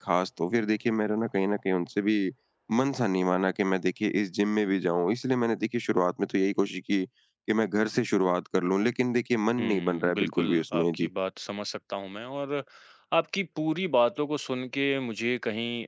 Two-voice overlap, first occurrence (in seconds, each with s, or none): 9.6 s